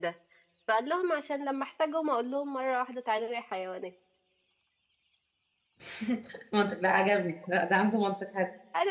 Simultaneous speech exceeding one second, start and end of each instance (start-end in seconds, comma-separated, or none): none